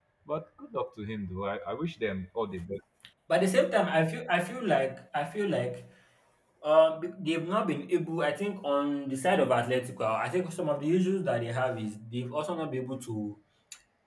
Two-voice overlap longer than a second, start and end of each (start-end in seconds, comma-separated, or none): none